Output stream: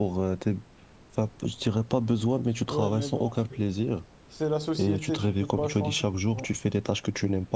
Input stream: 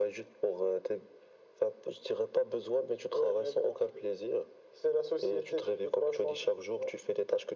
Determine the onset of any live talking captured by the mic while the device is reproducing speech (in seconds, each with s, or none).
none